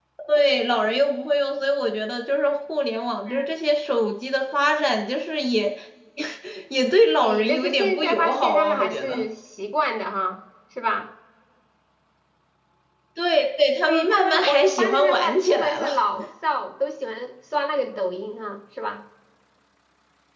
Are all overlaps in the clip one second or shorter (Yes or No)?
No